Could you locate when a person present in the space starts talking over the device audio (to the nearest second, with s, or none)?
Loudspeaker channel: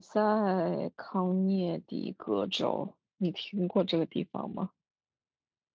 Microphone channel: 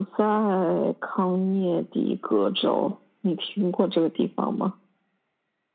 none